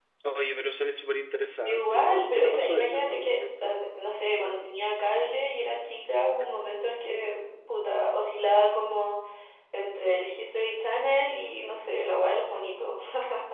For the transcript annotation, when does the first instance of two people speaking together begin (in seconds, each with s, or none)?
1.6 s